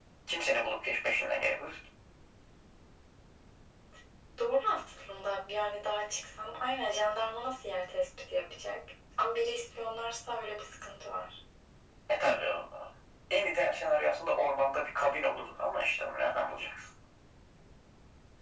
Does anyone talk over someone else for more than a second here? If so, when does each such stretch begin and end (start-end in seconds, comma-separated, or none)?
none